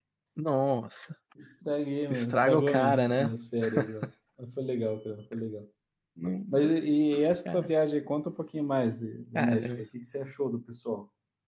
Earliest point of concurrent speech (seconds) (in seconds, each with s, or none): 2.1 s